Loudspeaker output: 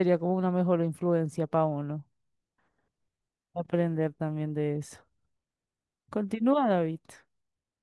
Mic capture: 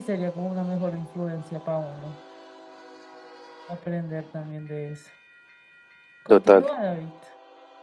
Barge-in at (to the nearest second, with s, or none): 6 s